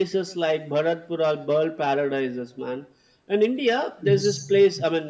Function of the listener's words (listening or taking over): listening